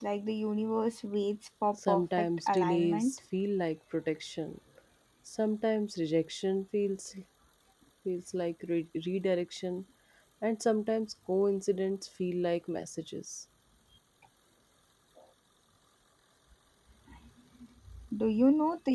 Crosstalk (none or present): present